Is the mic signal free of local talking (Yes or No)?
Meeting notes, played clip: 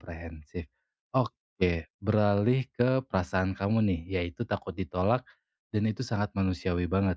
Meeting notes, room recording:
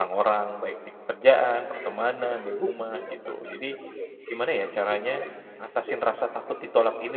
No